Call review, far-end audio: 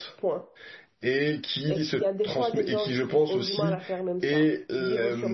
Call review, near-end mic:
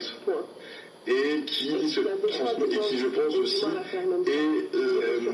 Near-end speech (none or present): none